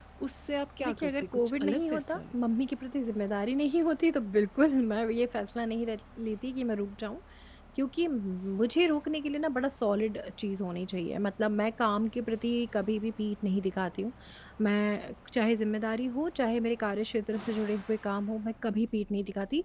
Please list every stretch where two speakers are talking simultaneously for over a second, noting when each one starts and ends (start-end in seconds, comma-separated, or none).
0.8-2.4